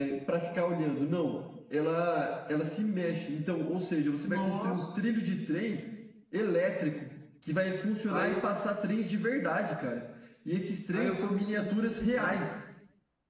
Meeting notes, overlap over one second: present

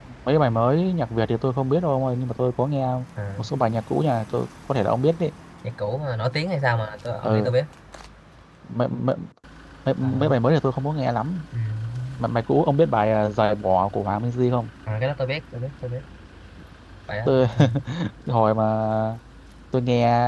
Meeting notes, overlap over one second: none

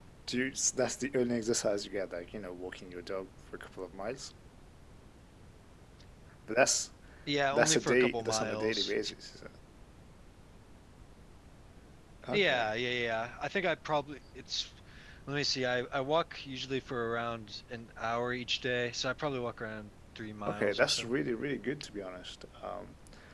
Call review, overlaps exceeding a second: present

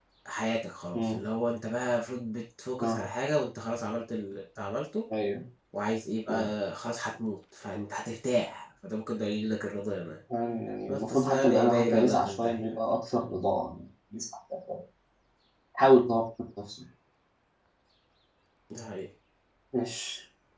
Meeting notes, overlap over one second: present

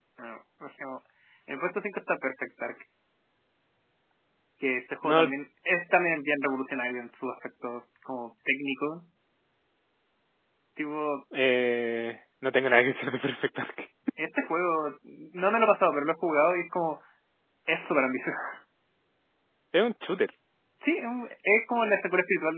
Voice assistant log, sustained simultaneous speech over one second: none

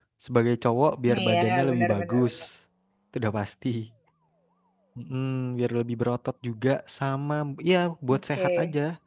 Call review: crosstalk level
present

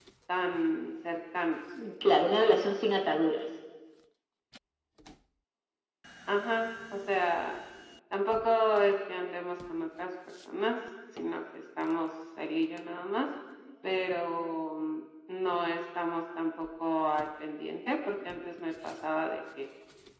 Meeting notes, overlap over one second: none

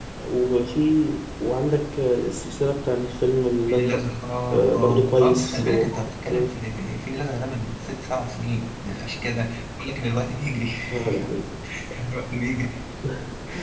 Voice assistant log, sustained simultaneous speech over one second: present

